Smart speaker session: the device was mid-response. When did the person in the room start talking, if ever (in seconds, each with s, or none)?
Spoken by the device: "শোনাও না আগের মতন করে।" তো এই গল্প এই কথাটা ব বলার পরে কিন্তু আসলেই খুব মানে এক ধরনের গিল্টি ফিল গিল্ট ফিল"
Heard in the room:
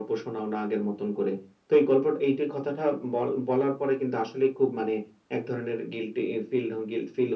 none